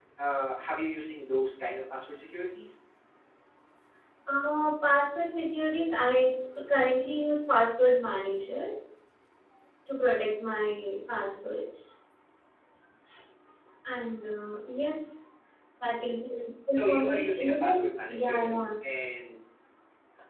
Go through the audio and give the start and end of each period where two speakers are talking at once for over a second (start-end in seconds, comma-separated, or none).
16.7-18.6